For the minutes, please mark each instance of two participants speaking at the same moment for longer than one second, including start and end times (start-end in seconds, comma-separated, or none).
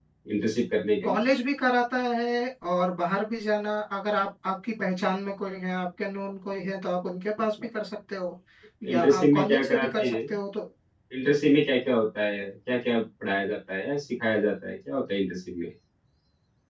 8.9-10.2